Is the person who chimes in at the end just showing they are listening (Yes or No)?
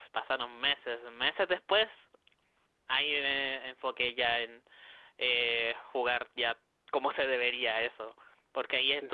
Yes